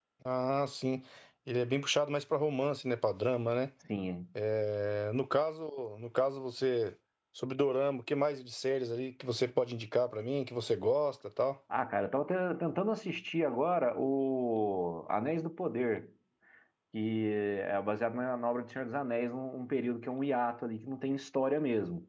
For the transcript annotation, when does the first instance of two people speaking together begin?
none

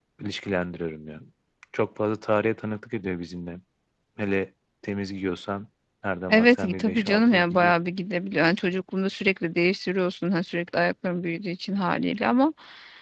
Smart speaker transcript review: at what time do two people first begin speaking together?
6.3 s

